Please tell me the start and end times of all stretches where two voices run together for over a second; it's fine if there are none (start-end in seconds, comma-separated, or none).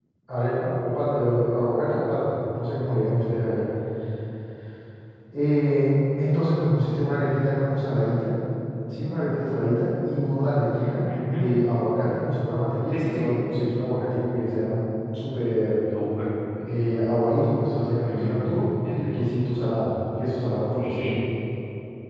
18.0-19.2